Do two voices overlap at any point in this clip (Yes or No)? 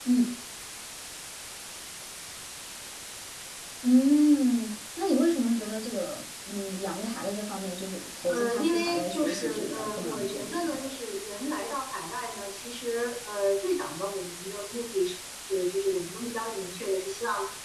Yes